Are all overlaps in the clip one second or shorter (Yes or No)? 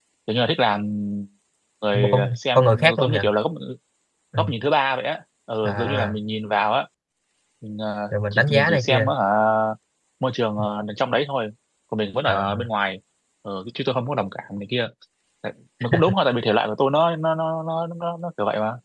No